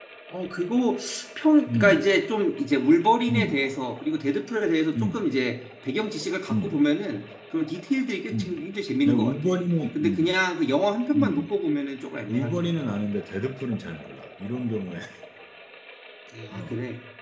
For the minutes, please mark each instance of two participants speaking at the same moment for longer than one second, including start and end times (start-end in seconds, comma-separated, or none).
none